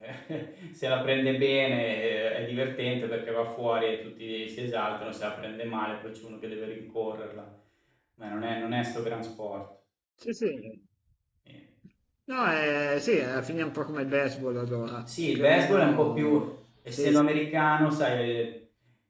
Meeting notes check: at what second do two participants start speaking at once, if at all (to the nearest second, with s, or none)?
15 s